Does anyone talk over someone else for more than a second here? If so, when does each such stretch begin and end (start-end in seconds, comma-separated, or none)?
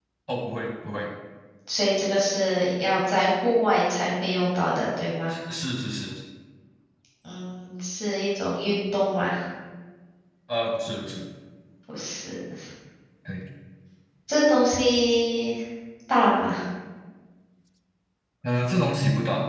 none